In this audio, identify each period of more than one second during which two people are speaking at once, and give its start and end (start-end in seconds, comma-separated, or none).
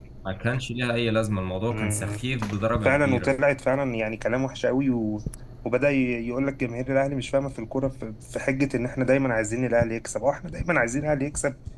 none